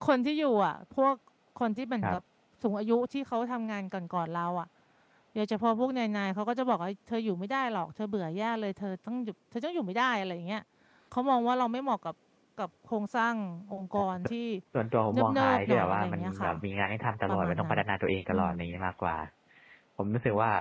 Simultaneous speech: Yes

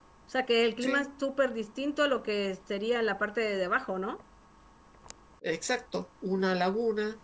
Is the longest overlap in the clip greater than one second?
No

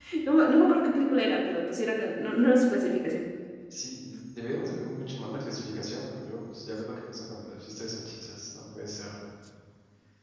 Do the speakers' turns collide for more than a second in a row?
No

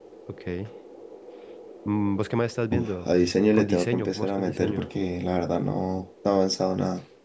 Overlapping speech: Yes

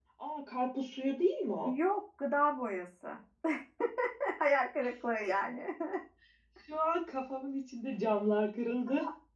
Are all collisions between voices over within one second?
Yes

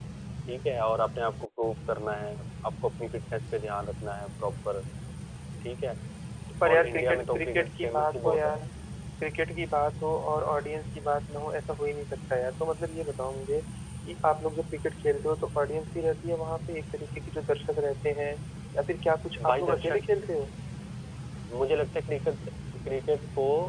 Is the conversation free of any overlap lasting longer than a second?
No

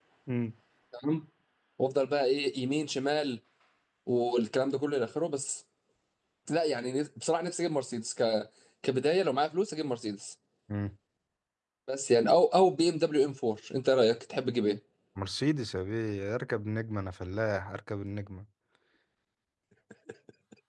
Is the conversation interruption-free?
Yes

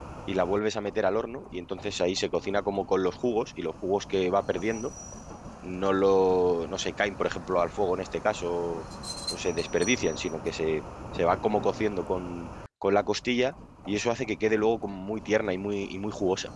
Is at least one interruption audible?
No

